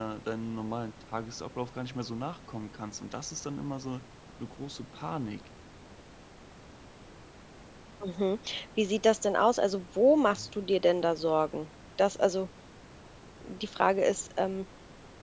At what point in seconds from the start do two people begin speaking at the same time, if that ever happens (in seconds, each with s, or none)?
none